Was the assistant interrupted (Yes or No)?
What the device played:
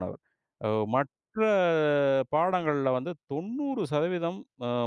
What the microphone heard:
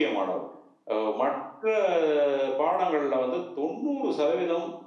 No